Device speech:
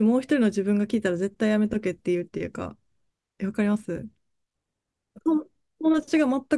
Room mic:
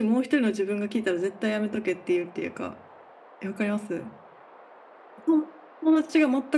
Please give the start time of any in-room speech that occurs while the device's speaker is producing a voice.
none

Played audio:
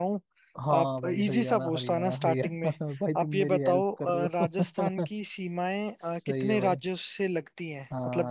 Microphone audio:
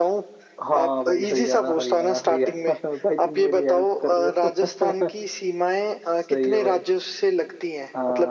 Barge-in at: none

